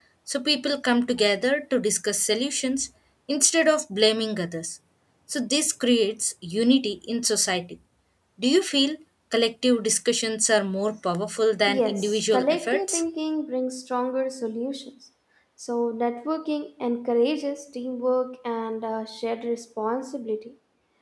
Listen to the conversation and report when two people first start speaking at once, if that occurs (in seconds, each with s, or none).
11.7 s